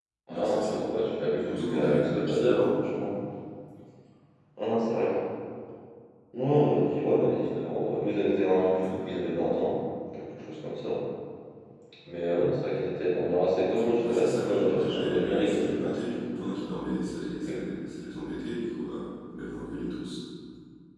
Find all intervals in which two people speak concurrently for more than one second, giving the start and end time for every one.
1.4-2.7, 14.0-15.9

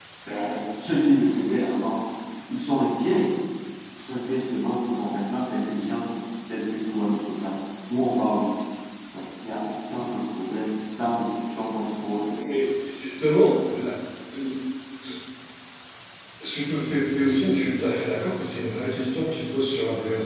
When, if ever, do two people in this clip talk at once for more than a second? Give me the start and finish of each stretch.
none

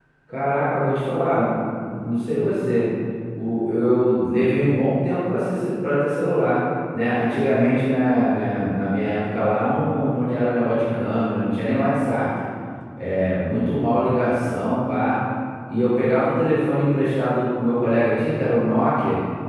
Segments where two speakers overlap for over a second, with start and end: none

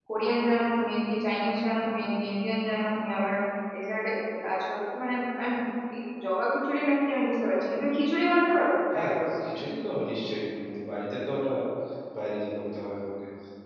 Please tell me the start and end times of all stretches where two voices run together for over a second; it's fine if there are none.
none

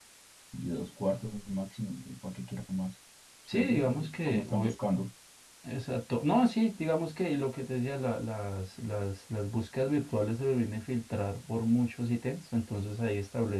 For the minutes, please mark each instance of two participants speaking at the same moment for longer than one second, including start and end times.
3.5-4.7

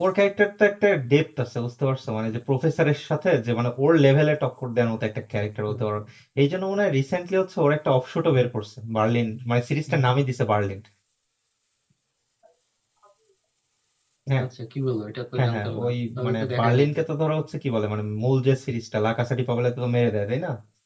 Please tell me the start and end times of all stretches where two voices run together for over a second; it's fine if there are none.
15.4-17.0

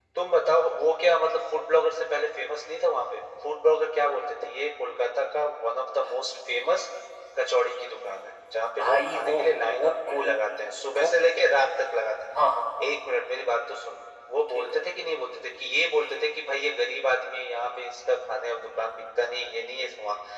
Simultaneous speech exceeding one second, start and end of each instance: 8.8-10.3

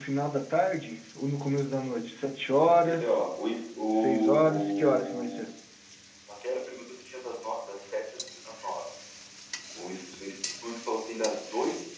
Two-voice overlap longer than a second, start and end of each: 3.9-5.4

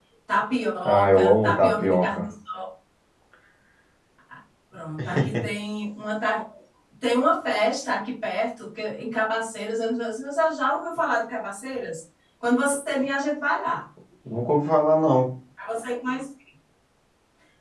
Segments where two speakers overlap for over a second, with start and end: 0.8-2.2

